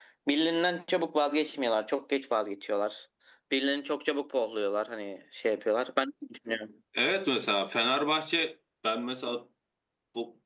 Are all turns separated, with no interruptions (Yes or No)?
Yes